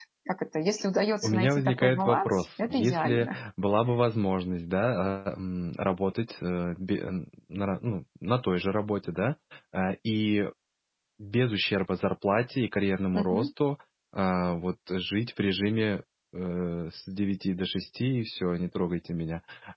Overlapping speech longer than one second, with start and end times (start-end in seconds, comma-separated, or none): 1.2-3.4